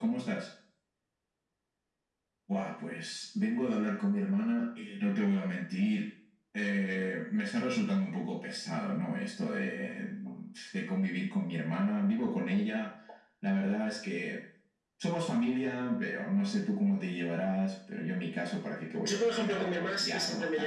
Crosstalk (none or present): present